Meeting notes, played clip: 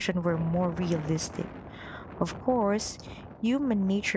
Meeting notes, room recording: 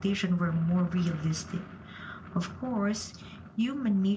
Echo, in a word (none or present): present